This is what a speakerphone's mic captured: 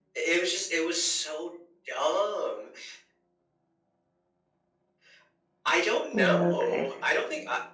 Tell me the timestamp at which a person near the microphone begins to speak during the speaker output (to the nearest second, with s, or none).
6 s